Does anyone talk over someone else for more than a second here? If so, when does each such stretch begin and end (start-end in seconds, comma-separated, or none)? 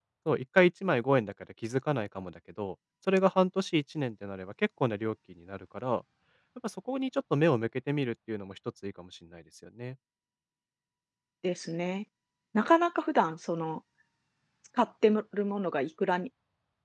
none